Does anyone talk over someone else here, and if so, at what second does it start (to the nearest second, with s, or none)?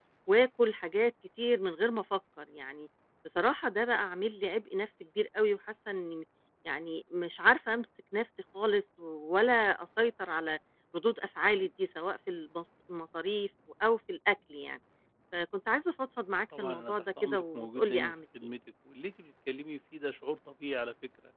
17 s